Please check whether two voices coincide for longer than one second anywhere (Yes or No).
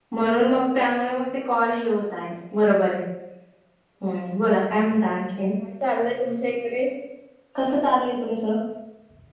No